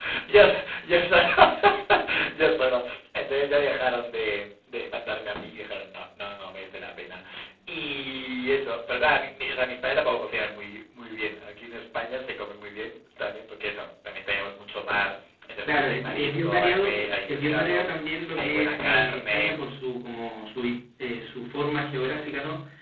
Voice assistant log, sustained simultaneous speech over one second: present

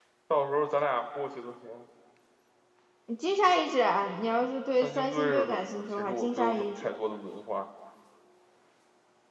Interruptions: present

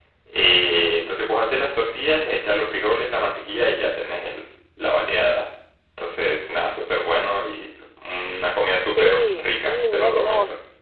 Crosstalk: present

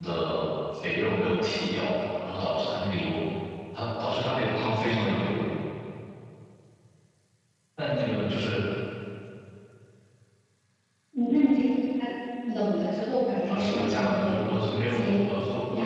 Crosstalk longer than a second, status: present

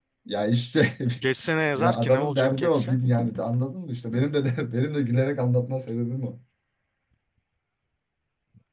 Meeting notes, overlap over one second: present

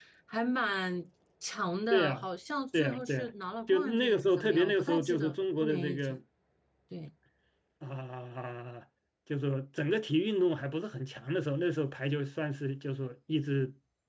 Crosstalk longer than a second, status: present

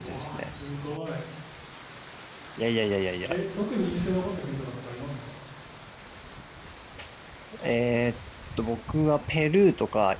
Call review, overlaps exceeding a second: none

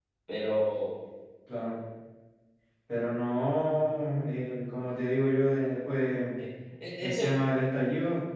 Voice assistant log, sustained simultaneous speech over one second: none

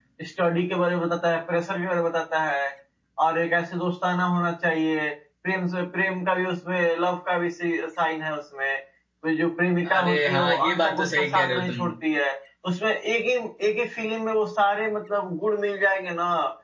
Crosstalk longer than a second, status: present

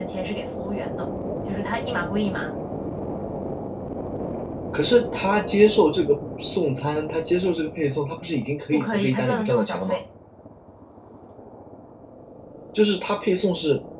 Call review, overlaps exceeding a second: present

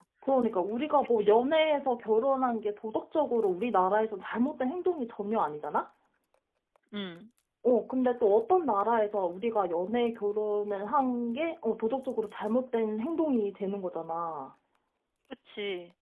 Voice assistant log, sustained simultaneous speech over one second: none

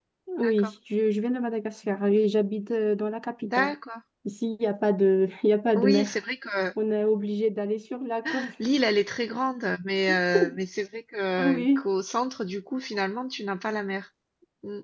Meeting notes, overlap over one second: none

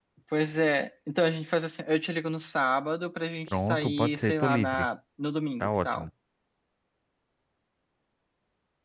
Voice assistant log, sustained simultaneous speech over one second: present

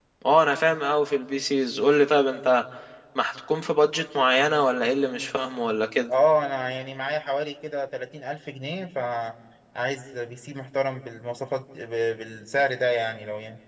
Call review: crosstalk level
none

